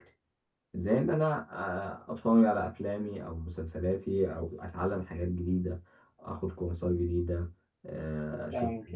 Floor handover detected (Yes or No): Yes